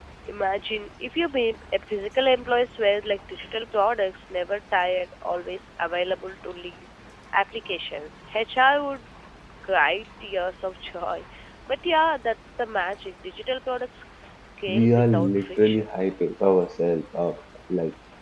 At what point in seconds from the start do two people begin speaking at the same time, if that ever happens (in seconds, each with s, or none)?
14.7 s